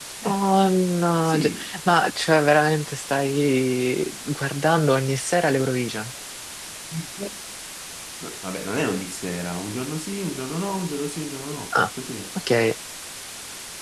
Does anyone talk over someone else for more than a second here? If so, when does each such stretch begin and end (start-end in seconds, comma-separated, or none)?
none